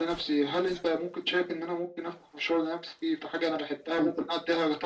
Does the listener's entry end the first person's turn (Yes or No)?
No